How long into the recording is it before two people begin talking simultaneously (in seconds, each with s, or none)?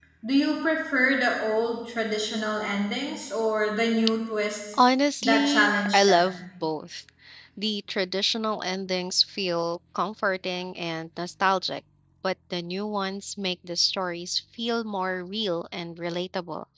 5.2 s